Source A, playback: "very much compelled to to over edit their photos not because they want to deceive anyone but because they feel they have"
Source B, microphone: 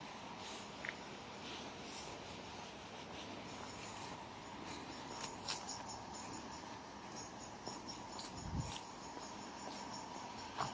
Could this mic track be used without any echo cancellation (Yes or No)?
Yes